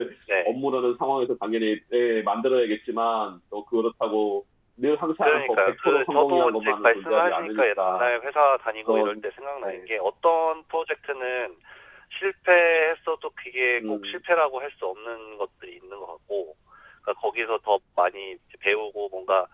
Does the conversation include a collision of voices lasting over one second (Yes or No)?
Yes